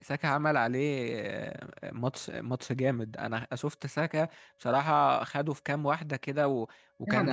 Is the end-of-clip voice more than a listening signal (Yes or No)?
Yes